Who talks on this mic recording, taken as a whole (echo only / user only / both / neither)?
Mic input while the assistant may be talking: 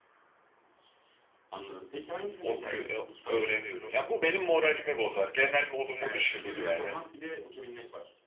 both